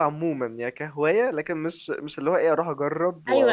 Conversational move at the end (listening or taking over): taking over